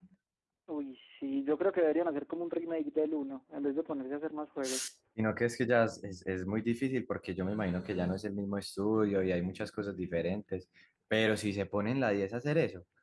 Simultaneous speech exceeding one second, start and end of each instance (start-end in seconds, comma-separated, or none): none